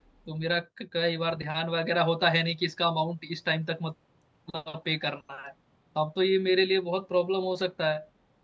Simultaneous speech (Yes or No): No